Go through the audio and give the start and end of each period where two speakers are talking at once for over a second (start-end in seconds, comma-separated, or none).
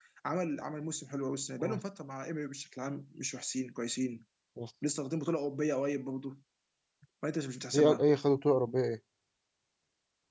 none